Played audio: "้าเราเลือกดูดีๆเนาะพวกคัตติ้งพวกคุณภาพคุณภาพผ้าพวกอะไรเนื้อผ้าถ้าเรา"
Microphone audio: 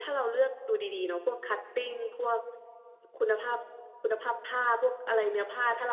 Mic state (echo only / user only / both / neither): echo only